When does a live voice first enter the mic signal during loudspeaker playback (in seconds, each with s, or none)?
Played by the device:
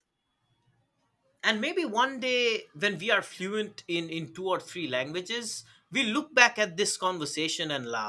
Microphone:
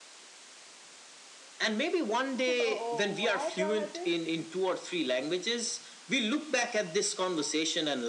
2.5 s